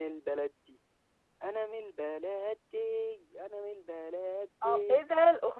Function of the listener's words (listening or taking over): taking over